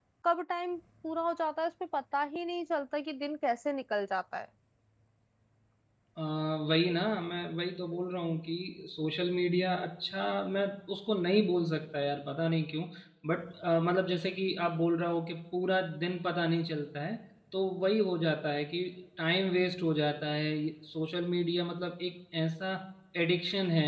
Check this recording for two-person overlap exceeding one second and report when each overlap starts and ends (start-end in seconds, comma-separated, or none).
none